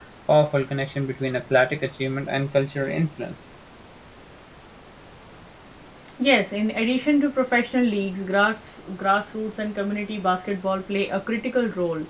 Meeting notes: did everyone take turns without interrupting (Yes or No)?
Yes